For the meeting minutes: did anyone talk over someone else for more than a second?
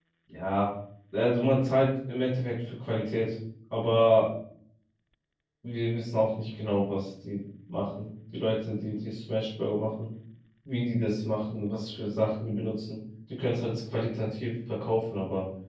No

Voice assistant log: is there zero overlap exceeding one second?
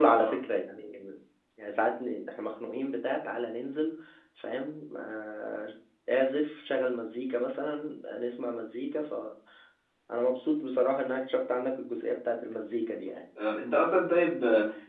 Yes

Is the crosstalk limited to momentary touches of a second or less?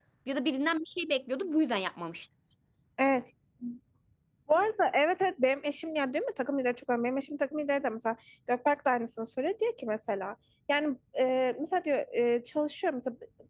Yes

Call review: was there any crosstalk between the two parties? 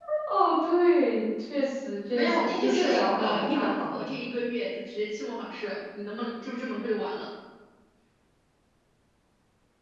Yes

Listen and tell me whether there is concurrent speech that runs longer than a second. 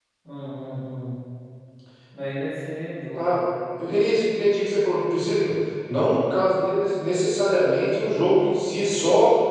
No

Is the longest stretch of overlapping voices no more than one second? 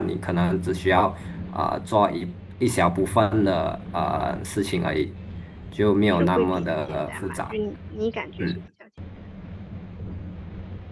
No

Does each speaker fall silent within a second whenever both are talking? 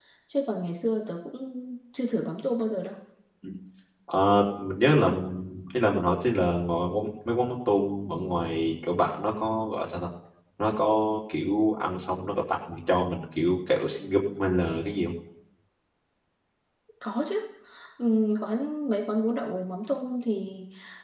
Yes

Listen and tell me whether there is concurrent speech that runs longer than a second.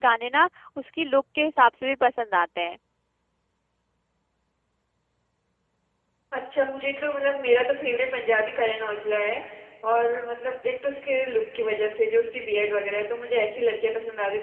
No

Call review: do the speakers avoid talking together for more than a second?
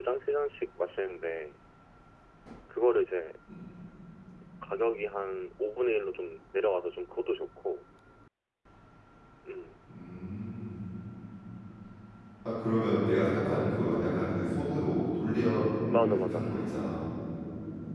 Yes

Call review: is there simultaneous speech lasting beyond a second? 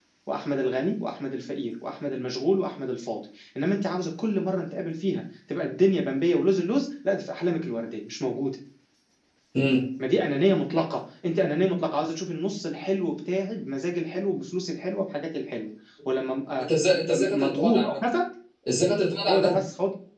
Yes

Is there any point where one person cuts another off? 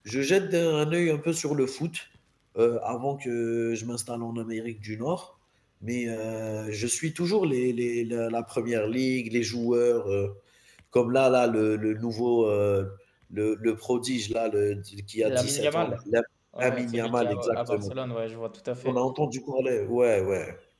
Yes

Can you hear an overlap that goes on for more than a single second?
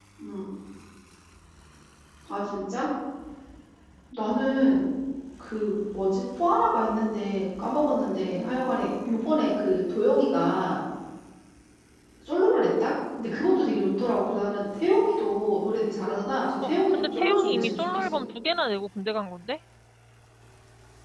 Yes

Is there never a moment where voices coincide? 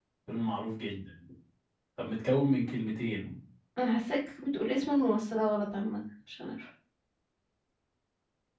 Yes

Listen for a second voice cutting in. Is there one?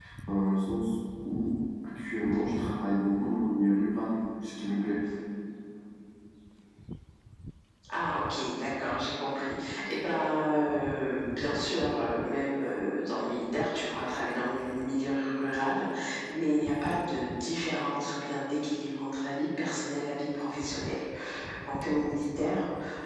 No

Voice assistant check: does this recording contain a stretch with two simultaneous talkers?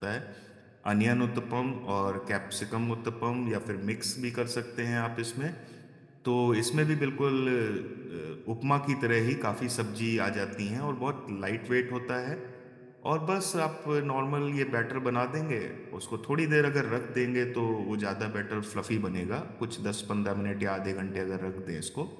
No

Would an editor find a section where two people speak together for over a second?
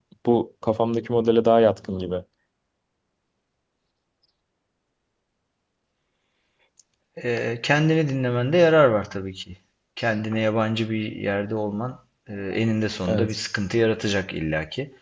No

